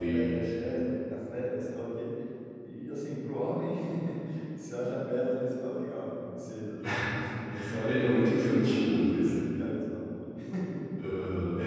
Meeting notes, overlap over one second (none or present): present